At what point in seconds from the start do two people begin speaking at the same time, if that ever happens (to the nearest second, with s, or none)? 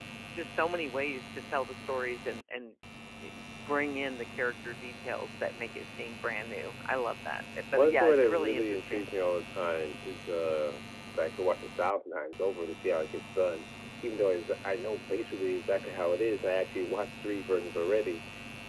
8 s